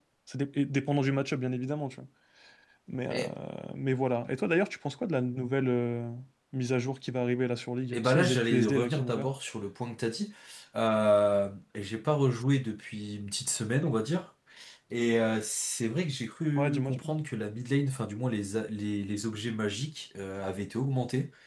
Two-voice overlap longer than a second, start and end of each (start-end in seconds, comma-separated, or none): 7.9-9.3